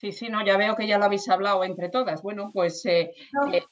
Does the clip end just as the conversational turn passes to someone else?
No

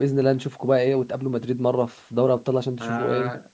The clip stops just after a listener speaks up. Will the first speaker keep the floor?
No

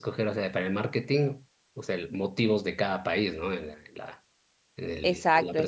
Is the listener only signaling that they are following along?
No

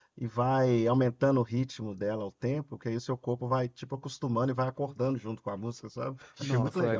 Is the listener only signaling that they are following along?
No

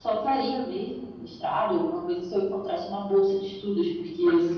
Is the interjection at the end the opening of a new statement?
No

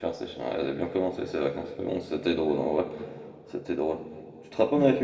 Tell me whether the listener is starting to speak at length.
No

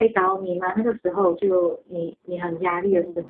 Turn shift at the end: Yes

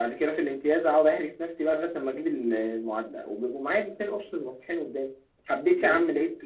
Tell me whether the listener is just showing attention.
Yes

